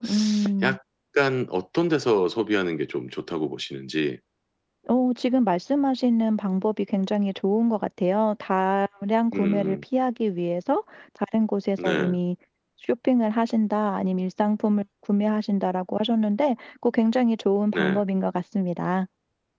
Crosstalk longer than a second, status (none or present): none